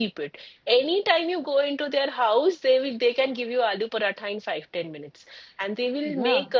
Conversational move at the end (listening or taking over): listening